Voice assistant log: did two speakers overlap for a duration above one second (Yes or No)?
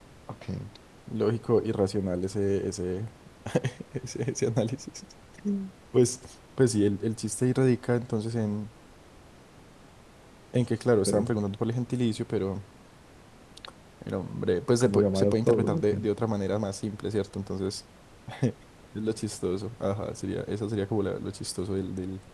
Yes